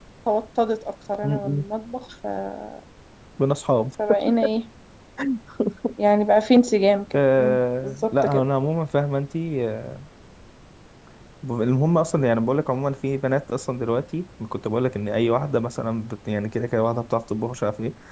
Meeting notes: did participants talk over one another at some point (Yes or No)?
Yes